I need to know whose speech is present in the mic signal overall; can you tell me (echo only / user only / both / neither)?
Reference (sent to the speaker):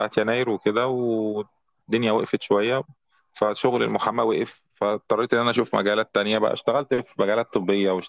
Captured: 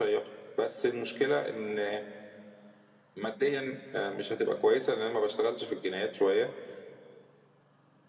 user only